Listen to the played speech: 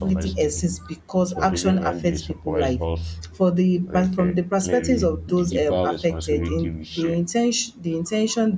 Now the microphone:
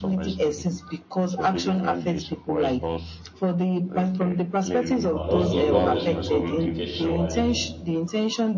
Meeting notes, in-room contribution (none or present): present